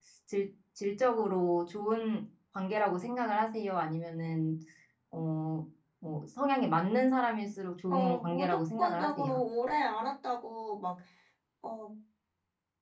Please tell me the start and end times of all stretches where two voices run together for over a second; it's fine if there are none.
7.9-9.4

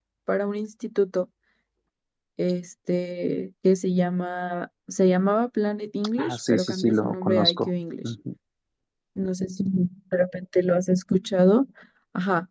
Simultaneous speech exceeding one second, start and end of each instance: 6.2-7.7

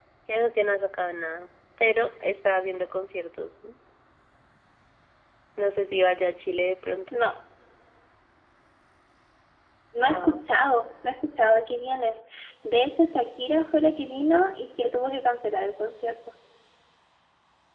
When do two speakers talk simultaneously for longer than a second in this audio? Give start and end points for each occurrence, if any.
none

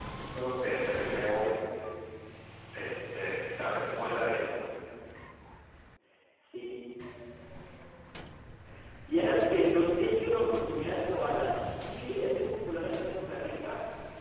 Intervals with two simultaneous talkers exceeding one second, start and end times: none

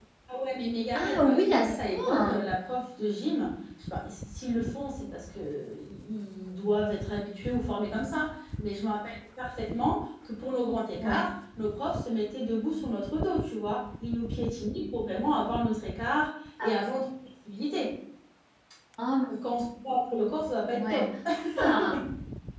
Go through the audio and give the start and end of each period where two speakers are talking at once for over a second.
0.9-2.4

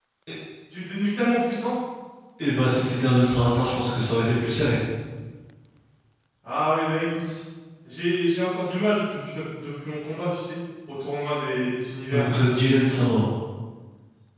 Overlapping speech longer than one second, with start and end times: none

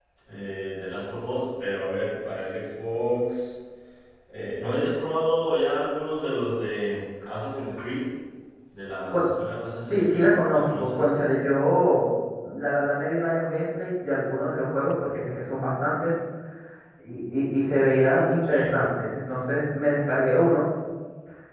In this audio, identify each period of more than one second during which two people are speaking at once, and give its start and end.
9.8-11.1

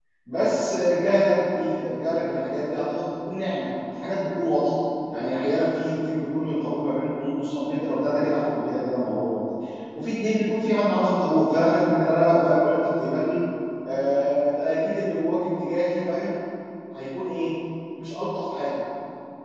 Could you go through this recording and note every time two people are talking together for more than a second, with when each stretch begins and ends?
none

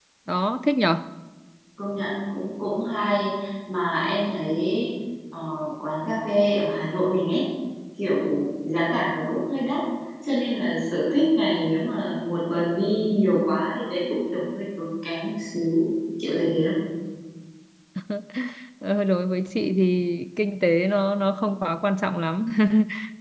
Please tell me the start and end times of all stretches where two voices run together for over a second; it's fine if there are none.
none

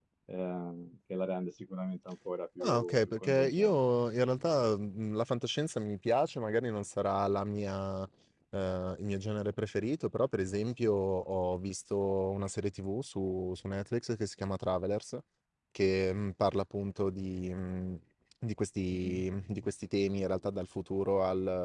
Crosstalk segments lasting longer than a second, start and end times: 2.6-3.8

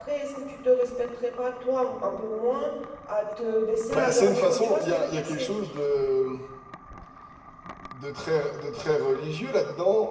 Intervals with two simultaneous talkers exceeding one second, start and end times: 3.9-5.5

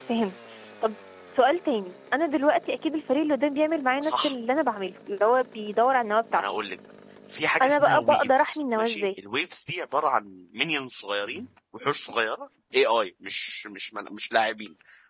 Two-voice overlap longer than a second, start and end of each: 7.6-9.1

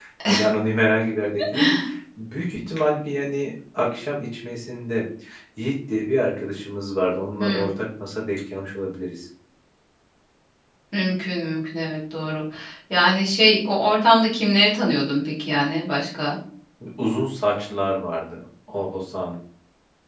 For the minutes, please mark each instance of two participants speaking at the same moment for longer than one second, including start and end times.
none

